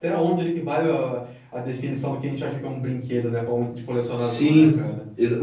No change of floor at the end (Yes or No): No